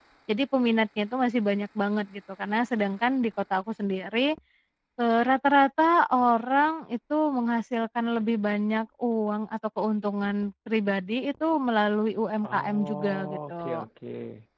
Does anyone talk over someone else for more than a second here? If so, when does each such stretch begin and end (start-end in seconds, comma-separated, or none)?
12.4-13.8